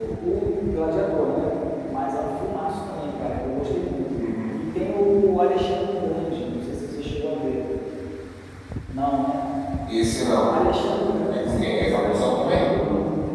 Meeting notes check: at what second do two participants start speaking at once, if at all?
11.3 s

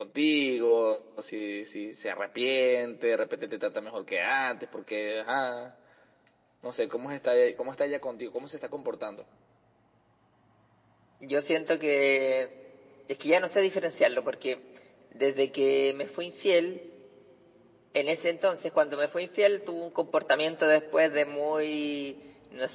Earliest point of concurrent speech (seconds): none

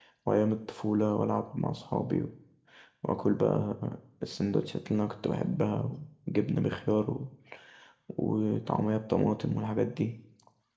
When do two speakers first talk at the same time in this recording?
none

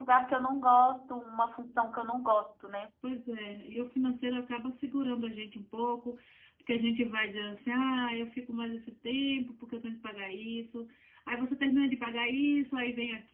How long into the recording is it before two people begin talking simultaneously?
none

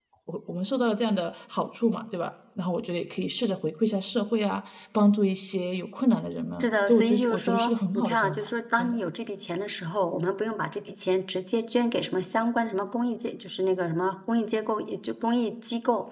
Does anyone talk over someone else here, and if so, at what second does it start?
6.6 s

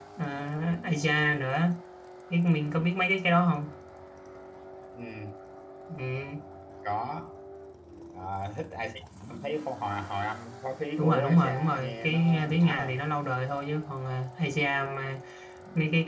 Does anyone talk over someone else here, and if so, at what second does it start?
11.0 s

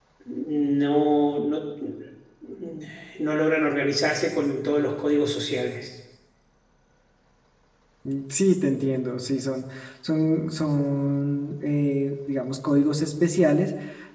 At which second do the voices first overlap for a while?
none

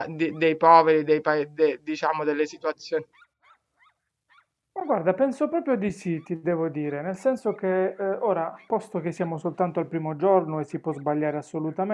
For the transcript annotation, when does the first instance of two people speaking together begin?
none

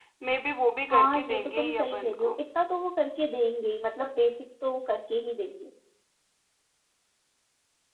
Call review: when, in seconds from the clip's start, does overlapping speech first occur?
0.9 s

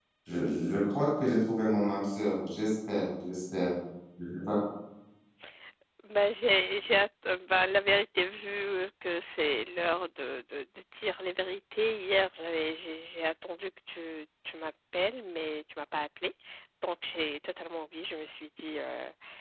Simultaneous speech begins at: none

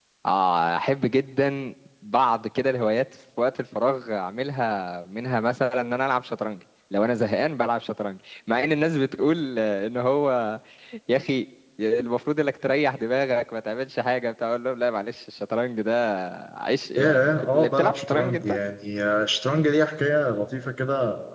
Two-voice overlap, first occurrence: 17.0 s

